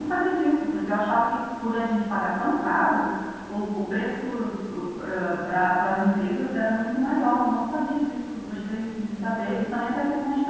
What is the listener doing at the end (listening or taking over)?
listening